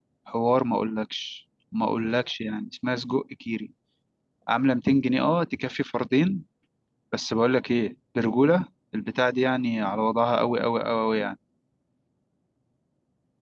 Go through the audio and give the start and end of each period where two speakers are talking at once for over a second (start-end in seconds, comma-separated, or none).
none